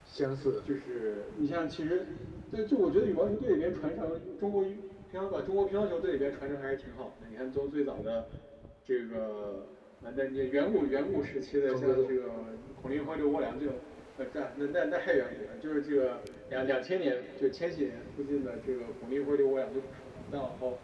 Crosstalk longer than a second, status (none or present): none